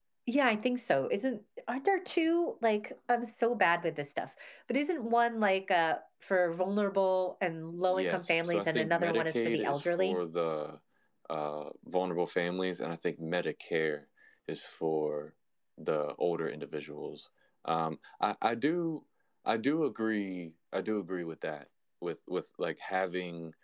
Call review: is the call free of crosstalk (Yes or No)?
No